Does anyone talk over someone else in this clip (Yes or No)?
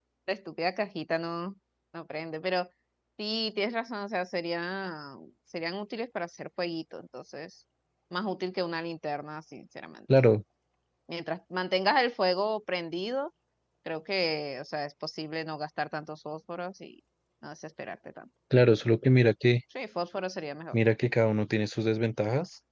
No